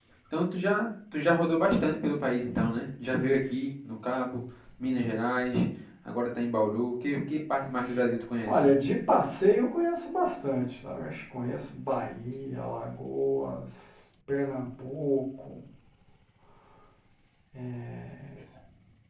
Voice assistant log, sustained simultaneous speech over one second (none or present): none